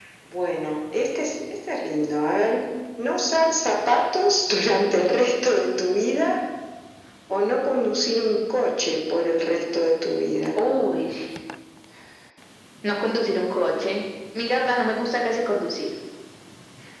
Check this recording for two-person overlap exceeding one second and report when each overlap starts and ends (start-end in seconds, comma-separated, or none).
none